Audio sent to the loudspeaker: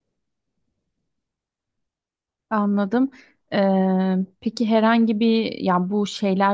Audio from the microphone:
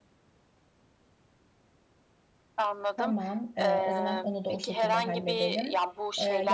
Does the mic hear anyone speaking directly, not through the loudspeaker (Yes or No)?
Yes